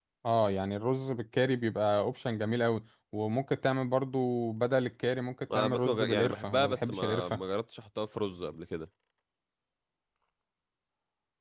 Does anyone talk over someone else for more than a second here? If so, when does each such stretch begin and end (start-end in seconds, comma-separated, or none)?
5.5-7.4